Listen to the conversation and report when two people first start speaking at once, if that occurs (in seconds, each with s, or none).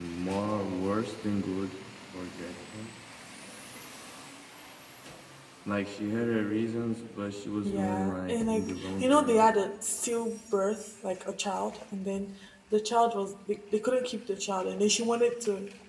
7.6 s